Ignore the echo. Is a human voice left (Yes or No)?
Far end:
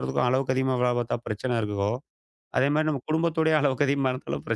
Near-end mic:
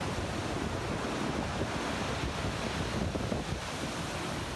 No